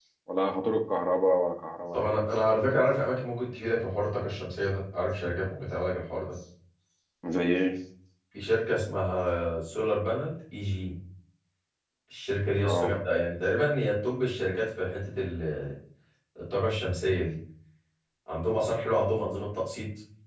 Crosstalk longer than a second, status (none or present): none